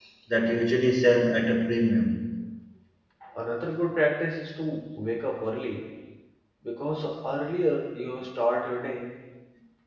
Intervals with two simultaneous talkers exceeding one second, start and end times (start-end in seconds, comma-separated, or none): none